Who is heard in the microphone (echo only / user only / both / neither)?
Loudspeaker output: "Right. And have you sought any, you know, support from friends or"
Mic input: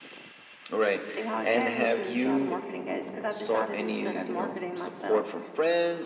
both